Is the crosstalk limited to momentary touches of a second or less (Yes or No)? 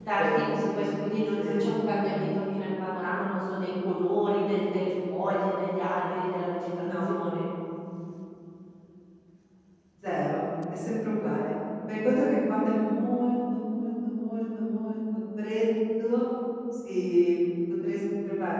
Yes